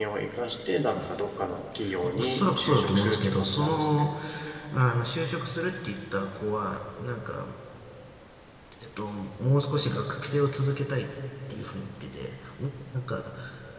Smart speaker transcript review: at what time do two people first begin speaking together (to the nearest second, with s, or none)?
2 s